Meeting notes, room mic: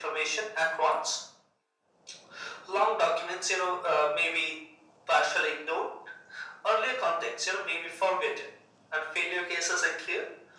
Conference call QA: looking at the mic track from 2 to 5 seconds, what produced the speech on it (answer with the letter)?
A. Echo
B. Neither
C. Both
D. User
A